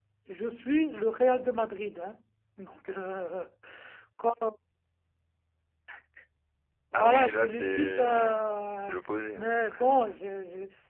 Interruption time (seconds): 6.9 s

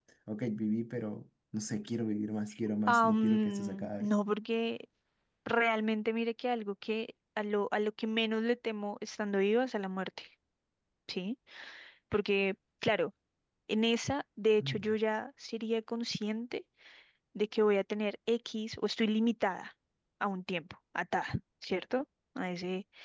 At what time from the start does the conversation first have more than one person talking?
2.9 s

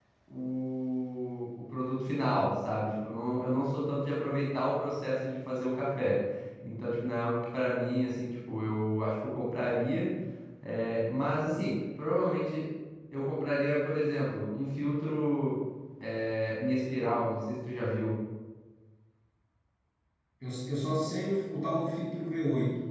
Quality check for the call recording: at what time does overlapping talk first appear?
none

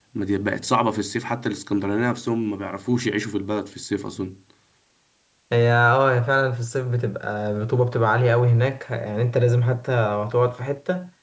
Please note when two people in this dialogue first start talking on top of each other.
none

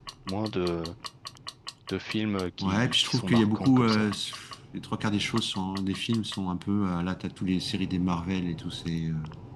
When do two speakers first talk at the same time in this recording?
2.6 s

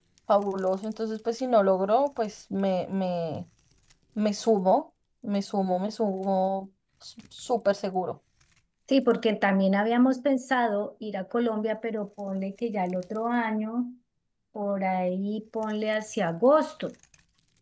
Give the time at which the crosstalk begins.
none

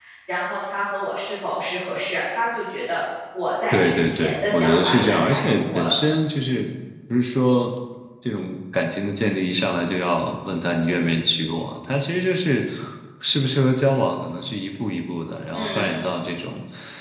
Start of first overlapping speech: 3.7 s

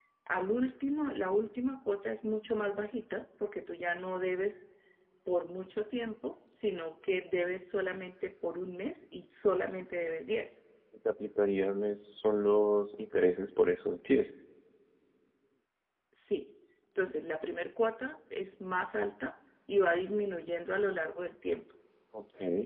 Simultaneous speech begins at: none

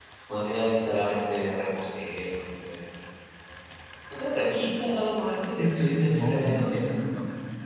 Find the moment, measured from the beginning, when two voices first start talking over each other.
5.6 s

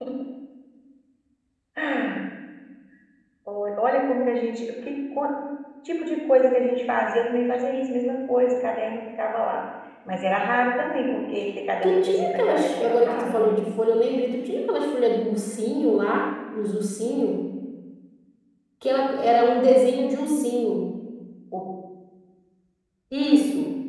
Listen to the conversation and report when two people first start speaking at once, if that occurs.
11.8 s

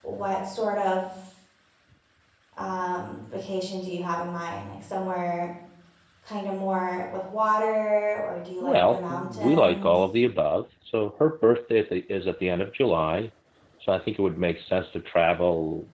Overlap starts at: 8.6 s

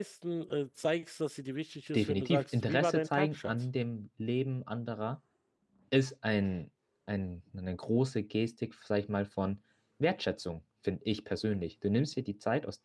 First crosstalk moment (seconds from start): 1.9 s

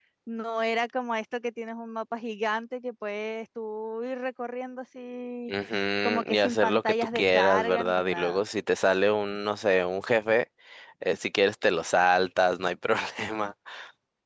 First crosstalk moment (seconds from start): 6.0 s

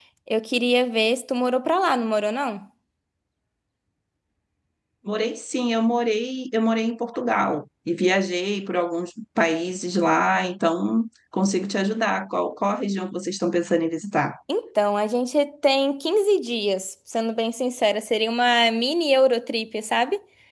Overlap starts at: none

